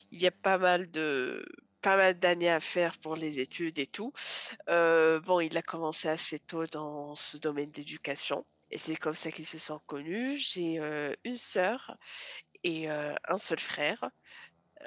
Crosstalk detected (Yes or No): No